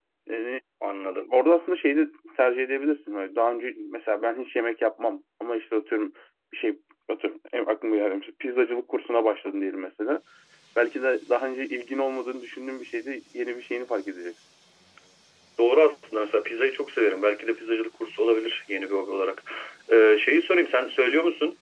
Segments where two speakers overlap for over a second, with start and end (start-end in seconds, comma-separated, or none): none